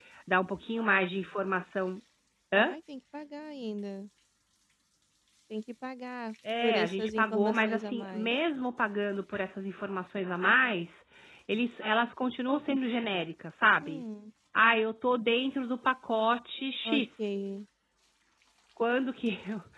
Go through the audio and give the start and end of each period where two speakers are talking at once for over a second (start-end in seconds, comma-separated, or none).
6.5-8.3